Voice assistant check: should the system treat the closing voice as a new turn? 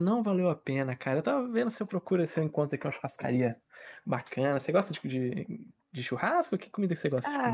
Yes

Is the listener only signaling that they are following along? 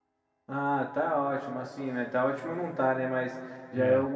Yes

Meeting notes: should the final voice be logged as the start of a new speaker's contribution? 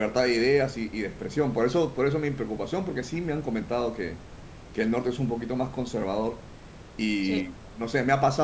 No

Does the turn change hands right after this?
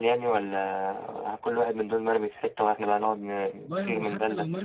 Yes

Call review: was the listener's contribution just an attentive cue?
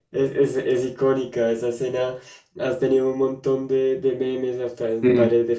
Yes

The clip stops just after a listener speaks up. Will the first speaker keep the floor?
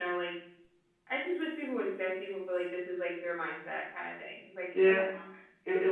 No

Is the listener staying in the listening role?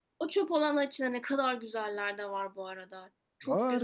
No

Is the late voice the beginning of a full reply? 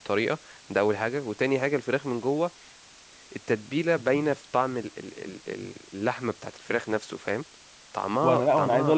Yes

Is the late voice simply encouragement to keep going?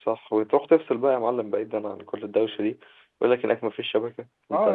No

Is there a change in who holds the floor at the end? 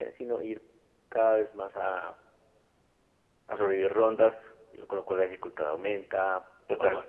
No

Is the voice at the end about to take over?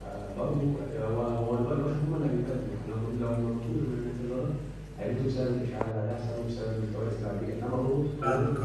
No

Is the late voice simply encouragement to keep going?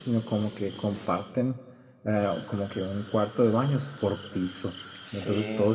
Yes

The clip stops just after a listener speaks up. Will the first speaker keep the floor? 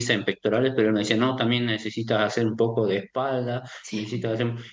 Yes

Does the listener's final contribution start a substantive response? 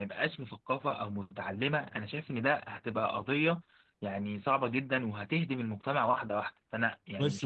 Yes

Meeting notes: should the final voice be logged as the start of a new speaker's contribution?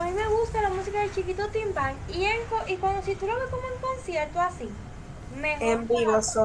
Yes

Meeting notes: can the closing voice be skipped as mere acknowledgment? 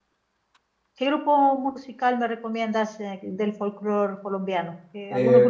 No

